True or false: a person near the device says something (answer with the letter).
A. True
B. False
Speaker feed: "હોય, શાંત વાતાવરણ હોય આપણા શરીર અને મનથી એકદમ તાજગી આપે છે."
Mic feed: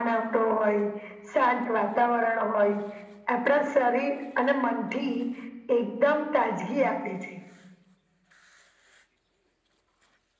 B